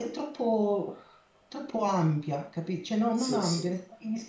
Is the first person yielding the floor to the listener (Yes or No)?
No